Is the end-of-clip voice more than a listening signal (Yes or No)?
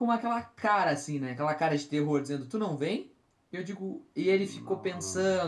No